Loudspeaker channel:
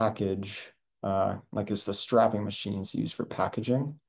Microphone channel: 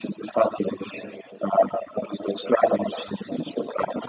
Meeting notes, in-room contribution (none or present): none